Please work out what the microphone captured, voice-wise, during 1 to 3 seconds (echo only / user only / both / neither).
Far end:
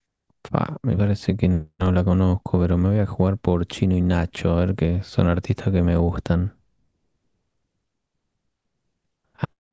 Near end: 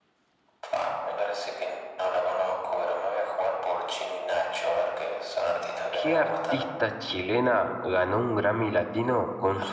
echo only